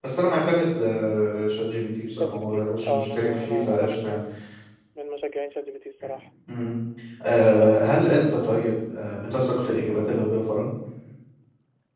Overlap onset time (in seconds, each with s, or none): 2.2 s